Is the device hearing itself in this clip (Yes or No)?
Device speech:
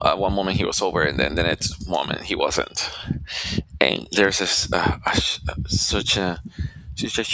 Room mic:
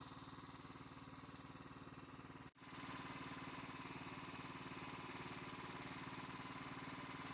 No